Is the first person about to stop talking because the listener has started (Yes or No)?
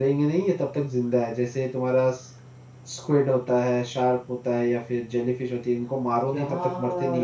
Yes